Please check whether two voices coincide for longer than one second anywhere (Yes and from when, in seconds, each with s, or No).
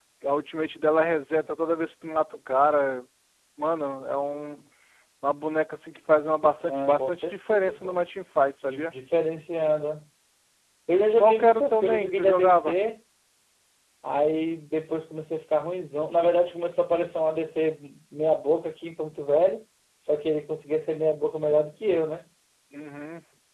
Yes, from 6.6 s